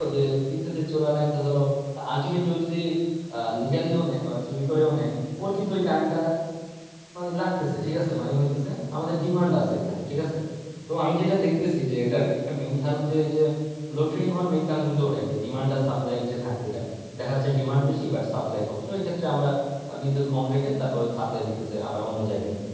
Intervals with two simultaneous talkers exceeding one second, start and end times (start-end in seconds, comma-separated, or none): none